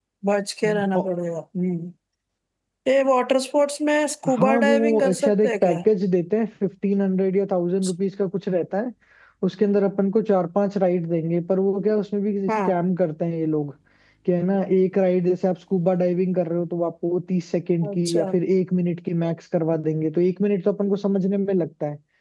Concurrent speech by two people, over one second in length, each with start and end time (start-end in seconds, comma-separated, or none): 4.3-5.8